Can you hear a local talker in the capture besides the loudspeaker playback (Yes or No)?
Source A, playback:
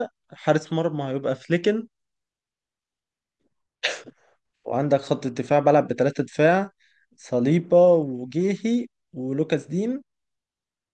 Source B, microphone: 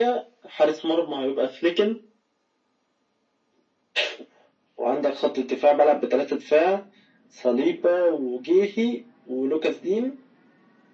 No